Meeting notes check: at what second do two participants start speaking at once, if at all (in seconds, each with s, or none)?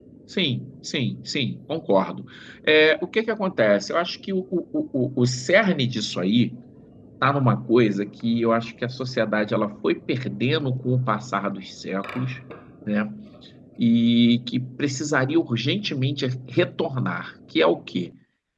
none